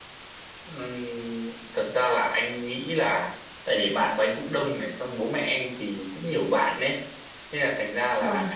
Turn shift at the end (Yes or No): No